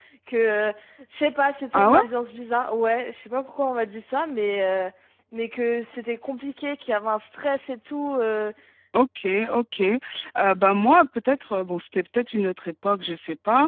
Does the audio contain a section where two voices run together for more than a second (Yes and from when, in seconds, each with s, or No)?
No